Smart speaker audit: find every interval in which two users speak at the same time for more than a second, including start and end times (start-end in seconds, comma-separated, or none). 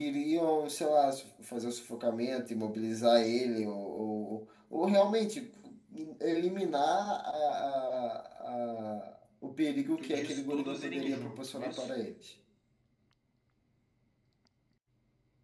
10.0-11.9